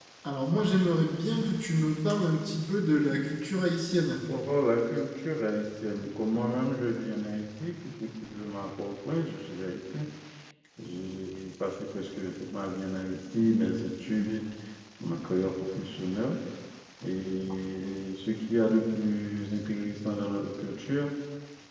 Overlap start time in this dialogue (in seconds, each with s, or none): none